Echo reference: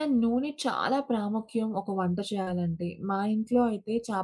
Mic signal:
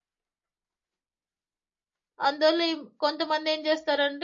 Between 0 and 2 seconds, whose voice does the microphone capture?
neither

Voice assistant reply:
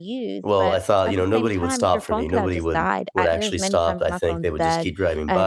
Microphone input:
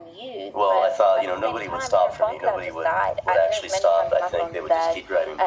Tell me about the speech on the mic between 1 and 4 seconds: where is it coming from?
echo only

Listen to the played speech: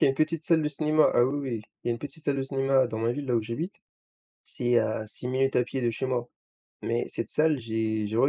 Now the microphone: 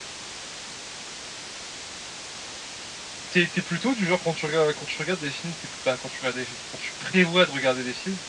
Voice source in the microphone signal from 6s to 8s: user only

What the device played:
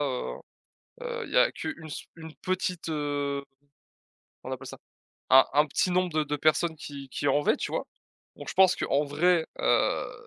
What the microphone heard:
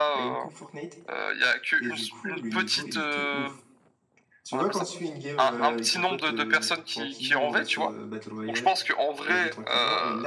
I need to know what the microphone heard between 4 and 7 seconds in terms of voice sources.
both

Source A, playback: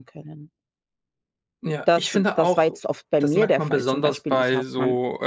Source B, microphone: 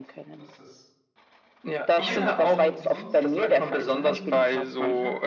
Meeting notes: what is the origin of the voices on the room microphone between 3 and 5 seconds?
both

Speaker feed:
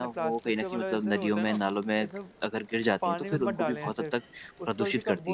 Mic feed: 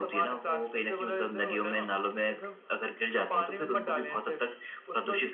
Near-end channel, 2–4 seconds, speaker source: echo only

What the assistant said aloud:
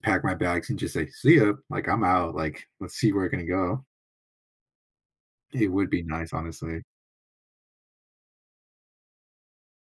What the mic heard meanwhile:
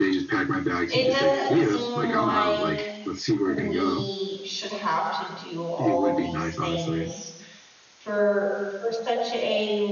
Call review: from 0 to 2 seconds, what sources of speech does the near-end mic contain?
both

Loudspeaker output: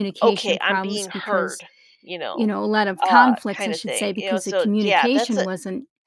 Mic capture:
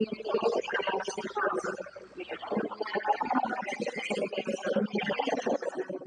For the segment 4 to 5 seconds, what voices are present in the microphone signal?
echo only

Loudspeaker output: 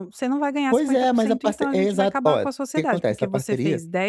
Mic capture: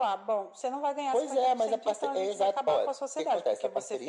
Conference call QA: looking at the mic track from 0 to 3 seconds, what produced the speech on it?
echo only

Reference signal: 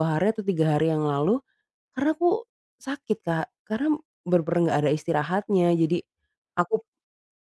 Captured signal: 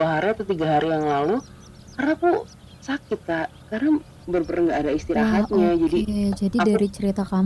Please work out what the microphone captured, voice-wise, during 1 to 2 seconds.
echo only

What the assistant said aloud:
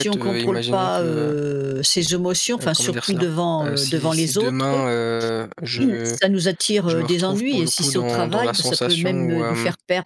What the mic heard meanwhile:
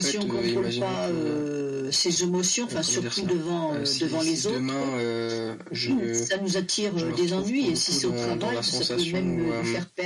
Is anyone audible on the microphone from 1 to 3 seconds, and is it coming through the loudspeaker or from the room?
echo only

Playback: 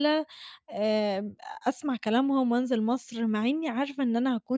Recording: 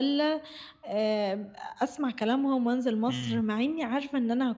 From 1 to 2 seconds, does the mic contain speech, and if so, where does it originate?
echo only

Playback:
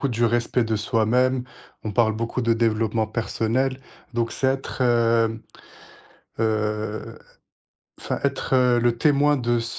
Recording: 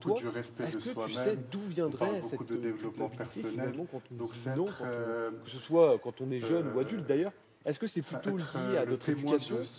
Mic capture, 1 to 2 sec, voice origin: both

